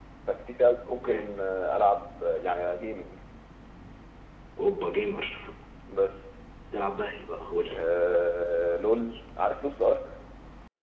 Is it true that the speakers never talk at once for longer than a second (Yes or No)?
Yes